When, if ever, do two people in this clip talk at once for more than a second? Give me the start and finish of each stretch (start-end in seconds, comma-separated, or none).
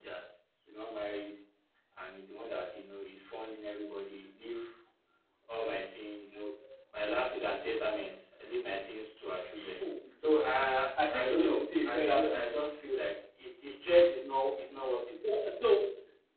11.0-12.8